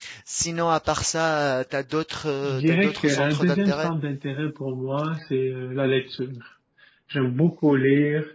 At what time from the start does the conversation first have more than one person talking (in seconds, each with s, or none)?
2.4 s